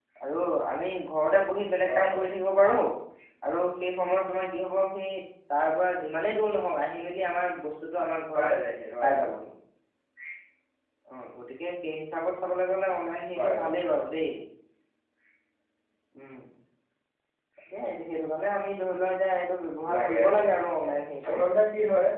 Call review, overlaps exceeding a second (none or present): present